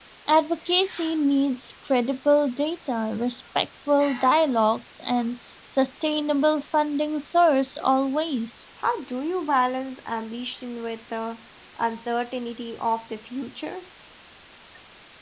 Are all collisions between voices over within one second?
Yes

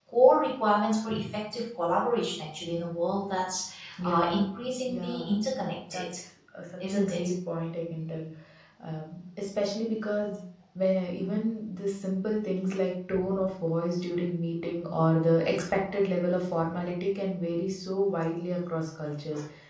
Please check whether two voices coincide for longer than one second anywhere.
Yes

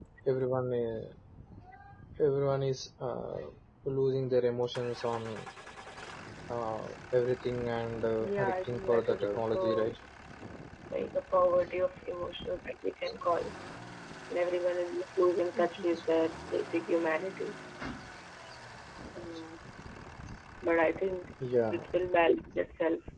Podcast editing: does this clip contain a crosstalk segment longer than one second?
Yes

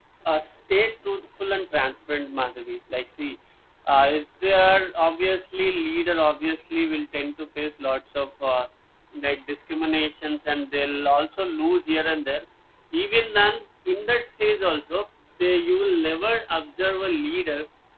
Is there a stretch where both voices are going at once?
No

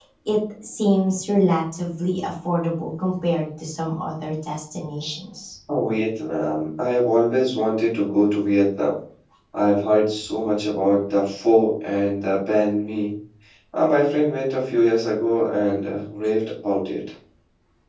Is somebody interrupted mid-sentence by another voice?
No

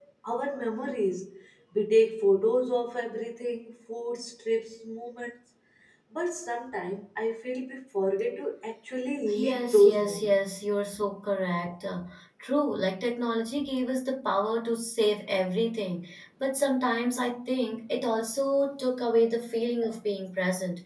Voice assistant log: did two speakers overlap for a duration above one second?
Yes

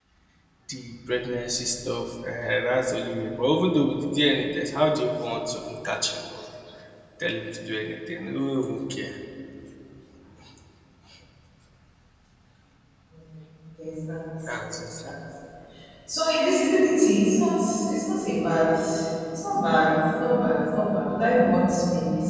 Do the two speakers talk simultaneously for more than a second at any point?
No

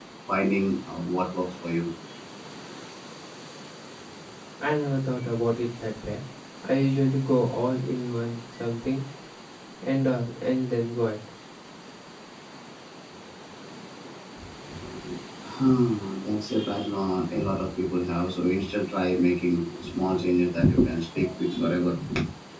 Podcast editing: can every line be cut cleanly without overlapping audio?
Yes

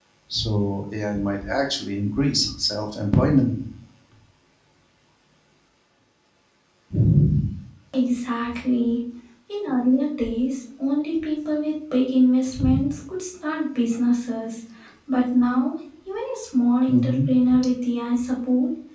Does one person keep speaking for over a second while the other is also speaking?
No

